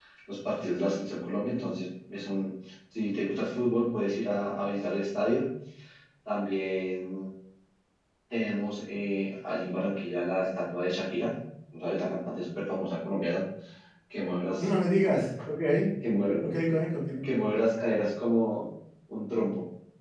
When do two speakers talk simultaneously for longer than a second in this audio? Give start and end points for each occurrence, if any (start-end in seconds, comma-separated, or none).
none